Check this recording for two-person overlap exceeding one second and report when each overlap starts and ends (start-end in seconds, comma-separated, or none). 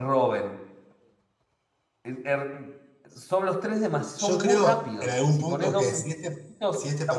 4.2-6.0